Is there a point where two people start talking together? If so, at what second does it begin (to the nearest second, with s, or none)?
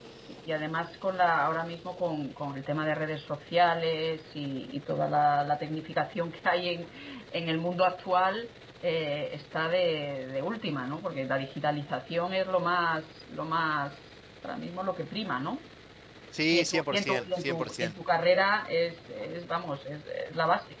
17 s